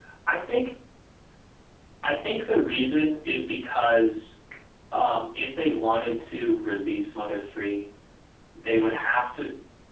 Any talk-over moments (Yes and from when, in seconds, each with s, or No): No